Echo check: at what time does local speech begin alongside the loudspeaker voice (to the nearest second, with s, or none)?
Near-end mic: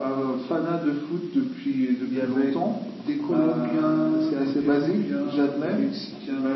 2 s